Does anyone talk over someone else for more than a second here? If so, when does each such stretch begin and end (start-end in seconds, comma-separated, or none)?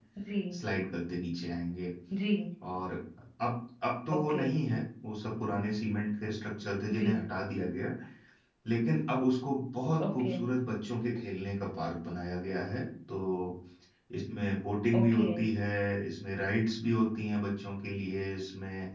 none